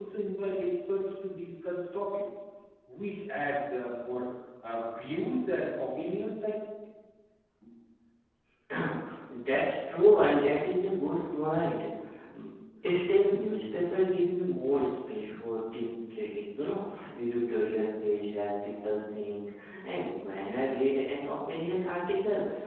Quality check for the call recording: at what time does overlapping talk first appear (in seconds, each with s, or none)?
none